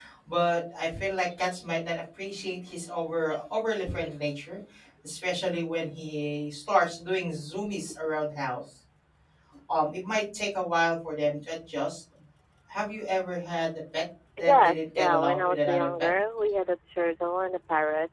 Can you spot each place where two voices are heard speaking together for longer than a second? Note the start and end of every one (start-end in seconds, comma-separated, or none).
14.4-16.1